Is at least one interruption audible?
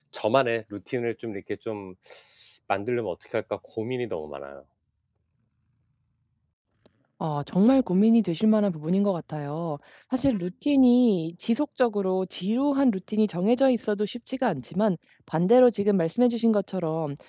No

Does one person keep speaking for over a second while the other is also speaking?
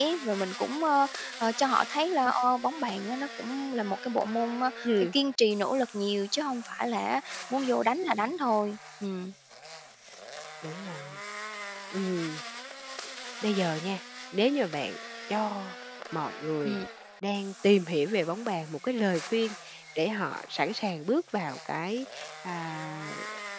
No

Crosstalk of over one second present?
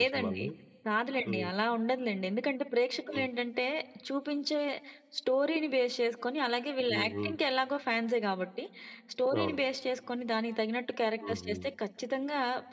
No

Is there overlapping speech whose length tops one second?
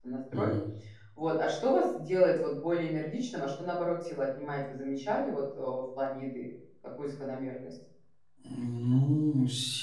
No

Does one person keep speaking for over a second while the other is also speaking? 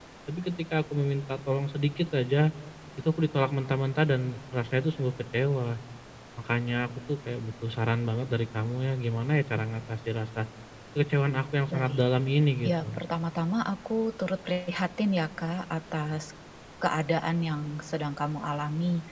No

